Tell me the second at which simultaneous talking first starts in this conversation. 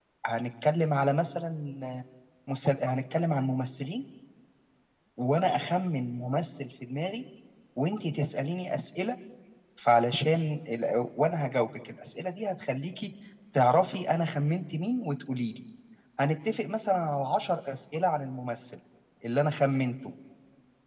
none

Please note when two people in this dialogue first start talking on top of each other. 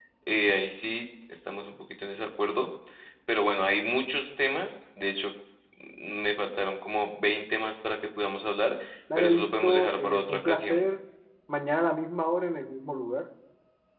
9.2 s

